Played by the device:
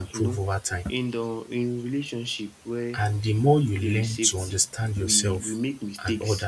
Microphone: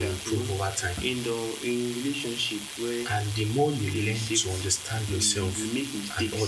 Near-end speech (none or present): none